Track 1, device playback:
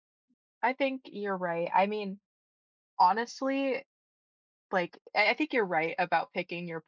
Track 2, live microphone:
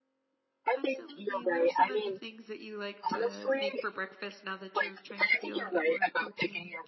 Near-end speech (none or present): present